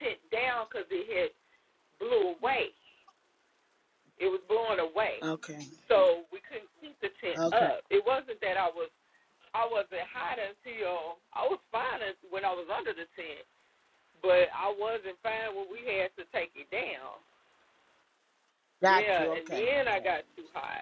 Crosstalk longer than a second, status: present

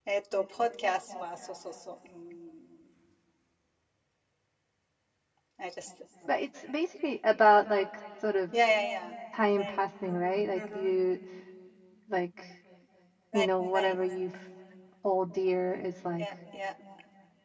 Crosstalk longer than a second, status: present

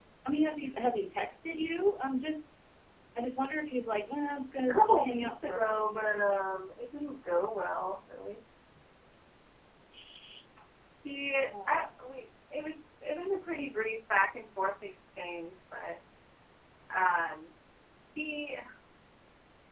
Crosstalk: present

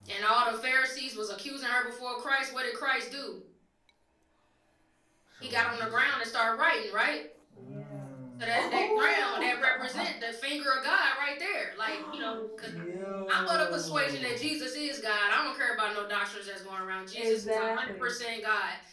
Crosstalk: present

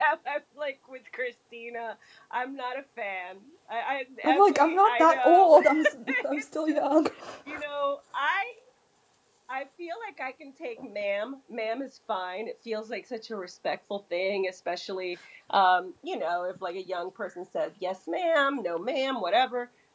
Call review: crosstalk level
present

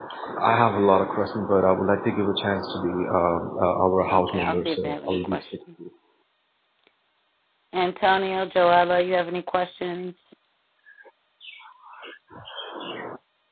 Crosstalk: present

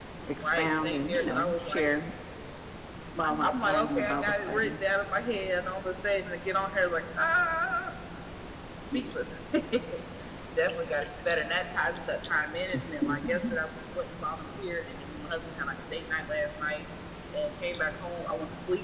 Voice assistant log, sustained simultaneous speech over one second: present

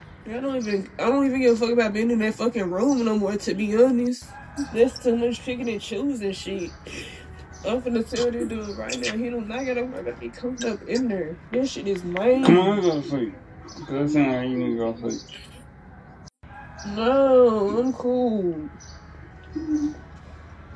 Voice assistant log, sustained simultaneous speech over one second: none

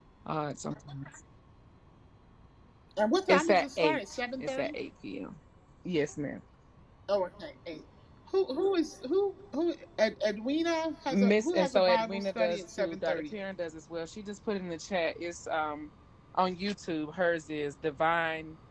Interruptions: present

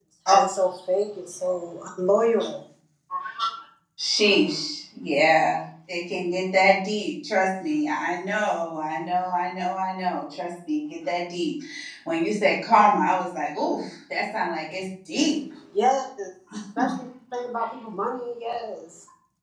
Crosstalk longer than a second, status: none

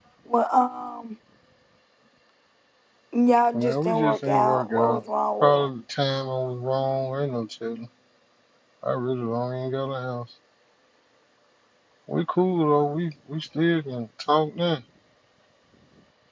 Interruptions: present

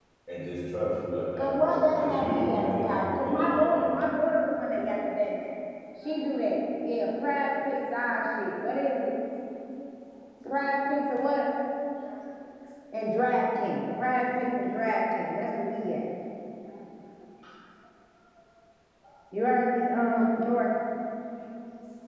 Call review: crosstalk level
present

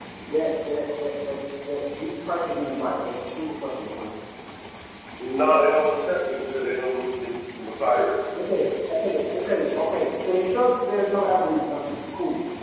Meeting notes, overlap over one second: none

